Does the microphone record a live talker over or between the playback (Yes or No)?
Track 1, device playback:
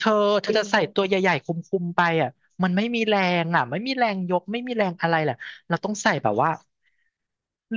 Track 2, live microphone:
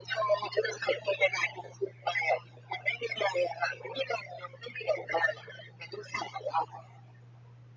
No